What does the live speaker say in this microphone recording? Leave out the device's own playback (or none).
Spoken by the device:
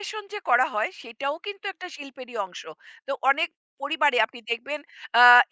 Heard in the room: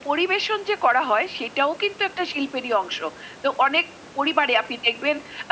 none